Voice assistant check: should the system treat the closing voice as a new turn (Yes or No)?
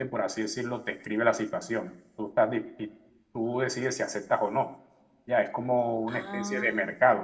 No